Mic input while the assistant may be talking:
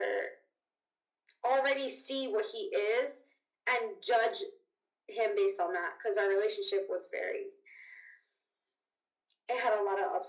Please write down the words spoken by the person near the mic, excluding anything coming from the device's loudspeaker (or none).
none